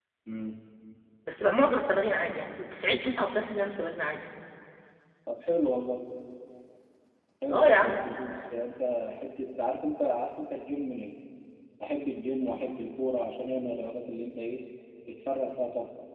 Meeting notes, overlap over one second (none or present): none